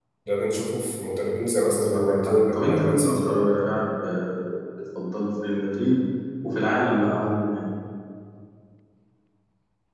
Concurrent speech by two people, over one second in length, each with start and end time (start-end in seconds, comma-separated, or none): 1.6-3.3